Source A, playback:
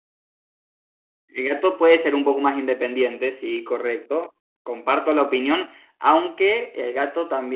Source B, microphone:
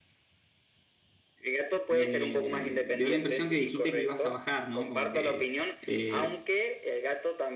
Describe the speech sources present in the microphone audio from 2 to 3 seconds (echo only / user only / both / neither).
both